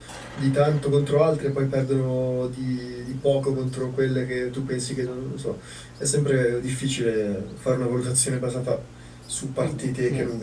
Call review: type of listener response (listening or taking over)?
taking over